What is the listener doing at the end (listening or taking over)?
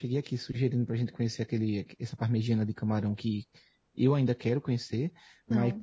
listening